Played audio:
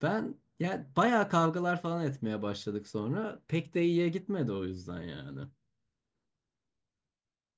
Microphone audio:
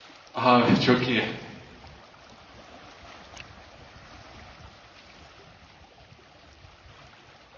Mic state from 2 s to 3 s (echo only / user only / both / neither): neither